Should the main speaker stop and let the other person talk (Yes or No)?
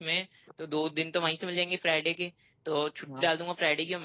No